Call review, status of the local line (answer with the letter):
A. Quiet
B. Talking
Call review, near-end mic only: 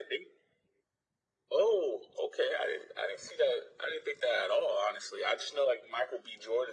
A